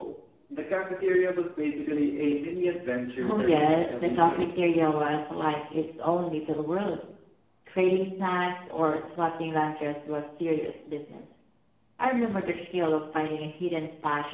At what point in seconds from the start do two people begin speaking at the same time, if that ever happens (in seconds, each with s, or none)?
3.2 s